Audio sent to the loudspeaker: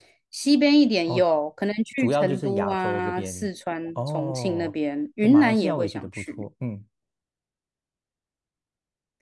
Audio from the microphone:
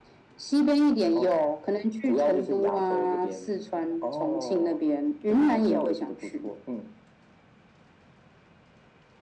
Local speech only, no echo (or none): none